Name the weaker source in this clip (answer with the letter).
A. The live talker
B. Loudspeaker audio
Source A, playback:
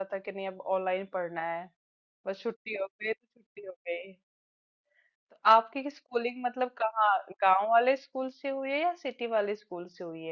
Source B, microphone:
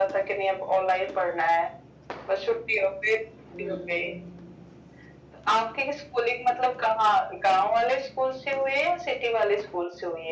A